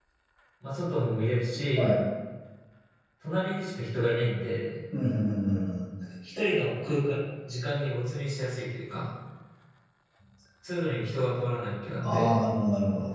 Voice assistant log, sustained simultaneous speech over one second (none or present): none